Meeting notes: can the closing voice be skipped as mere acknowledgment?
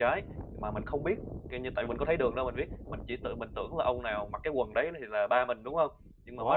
No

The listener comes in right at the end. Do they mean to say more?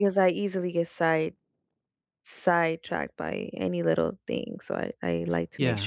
Yes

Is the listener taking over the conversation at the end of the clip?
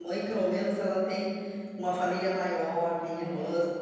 No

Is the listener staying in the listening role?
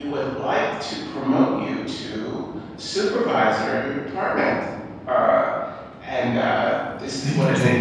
Yes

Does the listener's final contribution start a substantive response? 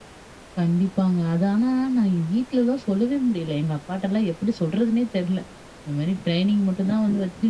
No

